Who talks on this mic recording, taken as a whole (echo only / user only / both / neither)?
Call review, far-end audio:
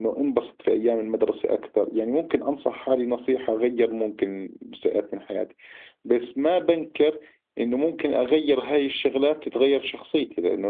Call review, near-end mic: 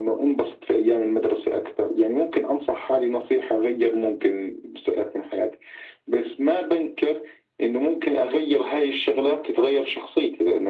echo only